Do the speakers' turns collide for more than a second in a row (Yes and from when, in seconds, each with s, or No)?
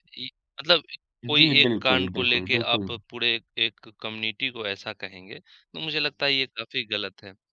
Yes, from 1.4 s